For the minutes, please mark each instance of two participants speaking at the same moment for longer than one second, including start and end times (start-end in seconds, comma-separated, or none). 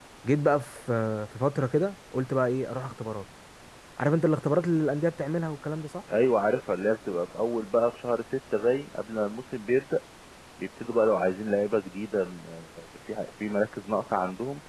none